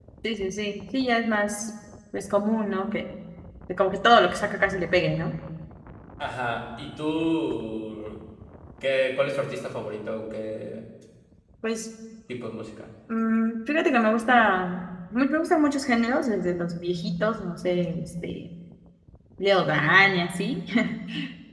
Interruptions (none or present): none